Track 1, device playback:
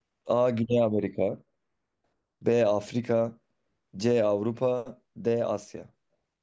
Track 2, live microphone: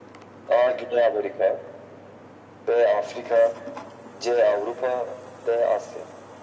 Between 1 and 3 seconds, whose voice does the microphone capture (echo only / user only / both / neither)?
echo only